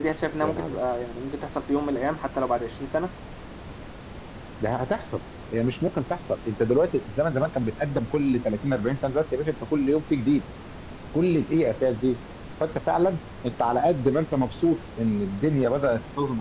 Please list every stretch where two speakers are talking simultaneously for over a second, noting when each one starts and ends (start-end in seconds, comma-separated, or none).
none